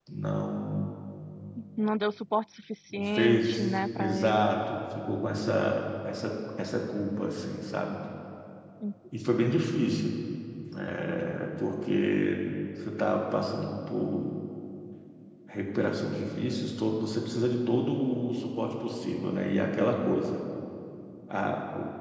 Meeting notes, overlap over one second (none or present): present